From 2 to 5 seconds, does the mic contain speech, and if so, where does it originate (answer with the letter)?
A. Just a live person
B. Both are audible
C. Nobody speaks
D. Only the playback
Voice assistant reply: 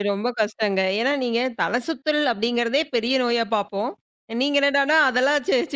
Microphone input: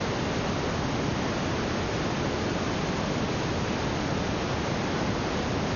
C